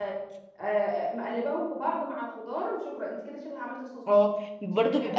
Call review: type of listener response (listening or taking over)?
taking over